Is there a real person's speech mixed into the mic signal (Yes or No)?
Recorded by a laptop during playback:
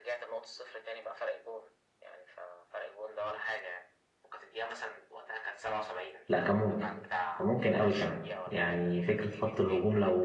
Yes